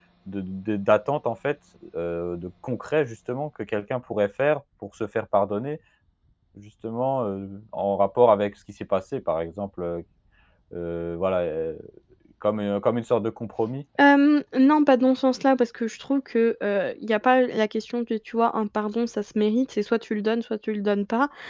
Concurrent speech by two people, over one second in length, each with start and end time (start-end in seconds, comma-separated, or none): none